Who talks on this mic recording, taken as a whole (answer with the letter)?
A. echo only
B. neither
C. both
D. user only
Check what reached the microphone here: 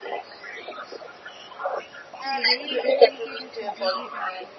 C